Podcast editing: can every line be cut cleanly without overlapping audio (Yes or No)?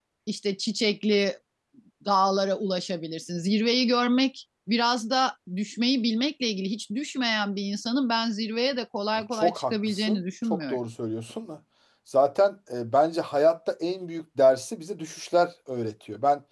No